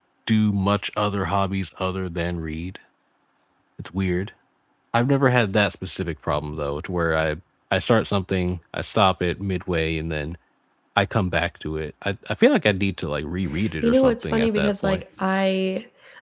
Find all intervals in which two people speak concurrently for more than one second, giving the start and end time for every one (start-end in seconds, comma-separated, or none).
13.8-15.0